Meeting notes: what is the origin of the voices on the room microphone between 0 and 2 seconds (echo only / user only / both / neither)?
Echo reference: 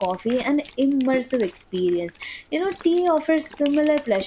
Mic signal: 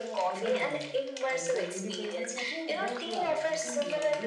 both